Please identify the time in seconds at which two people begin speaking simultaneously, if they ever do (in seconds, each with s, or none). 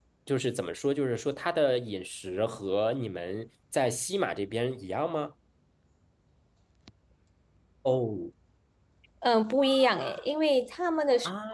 none